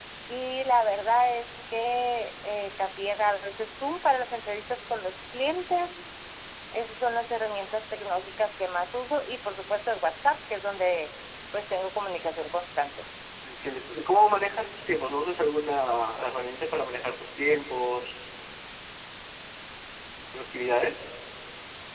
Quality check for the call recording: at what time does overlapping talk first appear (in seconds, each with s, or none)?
none